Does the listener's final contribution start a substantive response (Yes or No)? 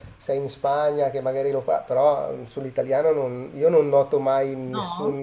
No